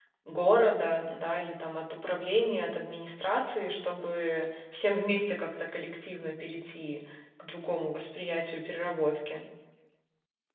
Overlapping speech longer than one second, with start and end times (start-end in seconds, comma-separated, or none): none